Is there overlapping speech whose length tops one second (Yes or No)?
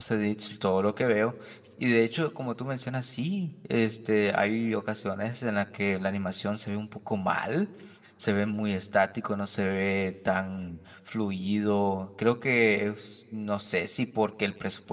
No